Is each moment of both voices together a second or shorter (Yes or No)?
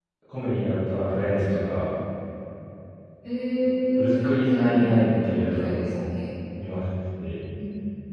No